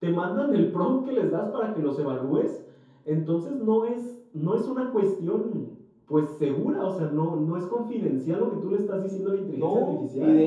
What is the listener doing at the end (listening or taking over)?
taking over